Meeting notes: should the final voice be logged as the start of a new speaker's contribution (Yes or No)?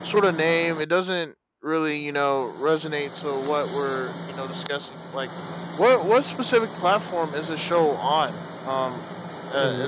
No